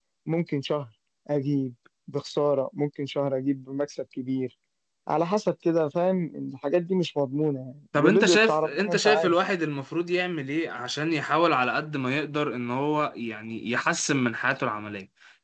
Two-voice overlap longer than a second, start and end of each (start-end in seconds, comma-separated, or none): 7.9-9.3